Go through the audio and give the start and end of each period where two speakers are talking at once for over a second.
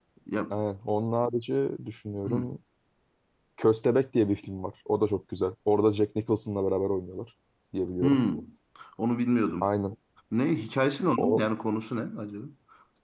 none

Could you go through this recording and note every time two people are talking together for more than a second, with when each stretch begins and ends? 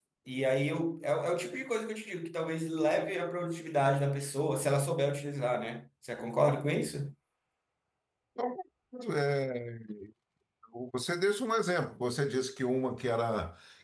none

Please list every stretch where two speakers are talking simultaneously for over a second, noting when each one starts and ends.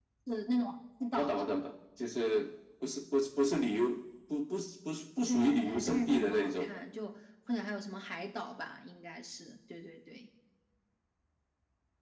5.3-6.8

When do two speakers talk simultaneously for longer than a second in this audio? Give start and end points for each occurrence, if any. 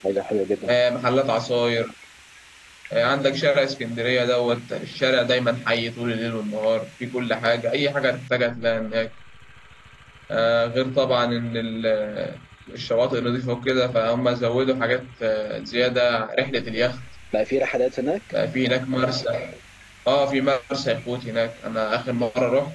none

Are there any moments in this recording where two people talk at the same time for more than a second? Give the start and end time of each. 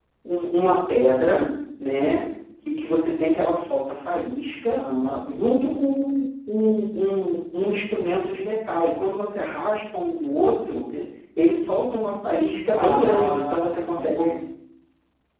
12.7-14.2

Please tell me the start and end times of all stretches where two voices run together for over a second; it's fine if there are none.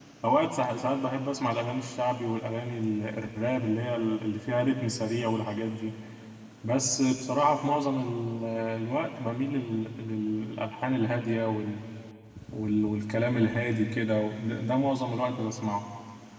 none

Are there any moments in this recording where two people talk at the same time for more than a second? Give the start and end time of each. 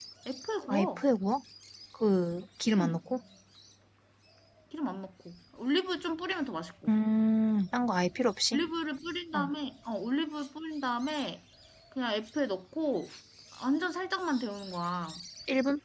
none

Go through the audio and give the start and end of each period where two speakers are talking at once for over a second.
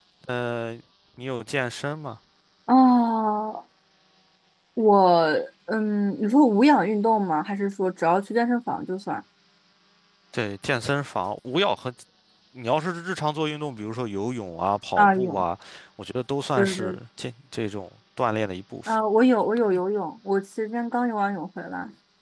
none

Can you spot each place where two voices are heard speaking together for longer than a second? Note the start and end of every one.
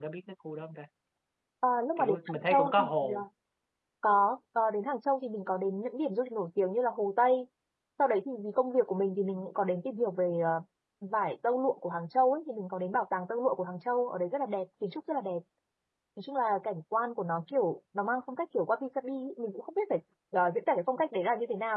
2.0-3.2

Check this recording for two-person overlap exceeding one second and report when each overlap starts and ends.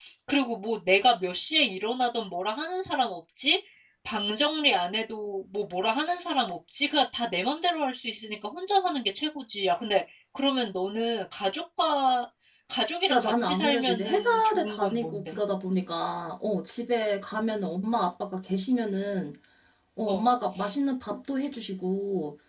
13.1-15.3

